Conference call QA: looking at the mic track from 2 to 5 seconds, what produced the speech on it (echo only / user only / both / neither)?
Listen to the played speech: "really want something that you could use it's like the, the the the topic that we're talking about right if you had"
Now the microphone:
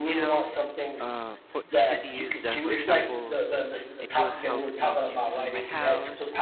both